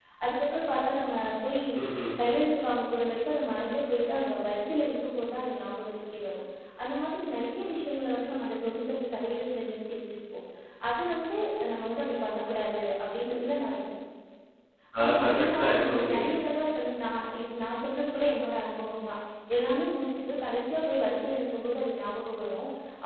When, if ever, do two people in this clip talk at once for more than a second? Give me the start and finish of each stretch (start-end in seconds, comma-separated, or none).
15.0-16.3